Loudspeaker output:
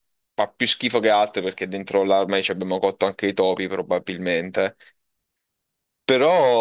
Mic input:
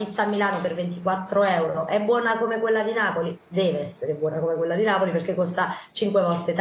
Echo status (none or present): none